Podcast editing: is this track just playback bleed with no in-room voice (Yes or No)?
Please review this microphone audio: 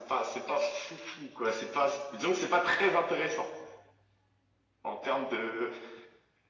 Yes